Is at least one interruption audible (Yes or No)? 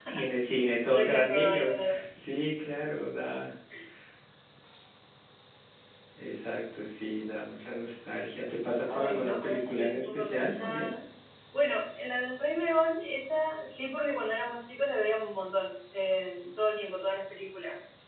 Yes